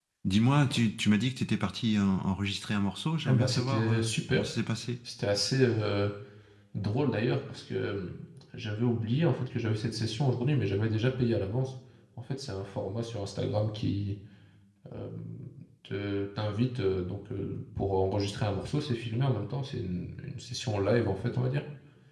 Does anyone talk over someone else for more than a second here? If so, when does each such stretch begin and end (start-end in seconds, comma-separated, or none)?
3.3-4.5